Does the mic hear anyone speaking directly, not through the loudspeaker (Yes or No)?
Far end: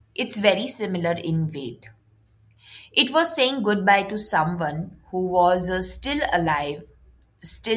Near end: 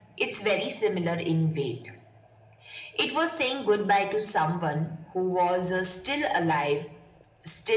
No